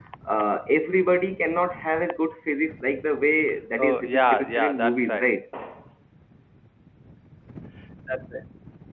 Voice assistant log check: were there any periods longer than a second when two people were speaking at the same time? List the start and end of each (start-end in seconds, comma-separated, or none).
3.8-5.3